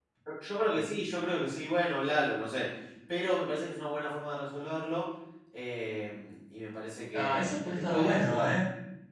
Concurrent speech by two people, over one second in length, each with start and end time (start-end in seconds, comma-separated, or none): 7.1-8.5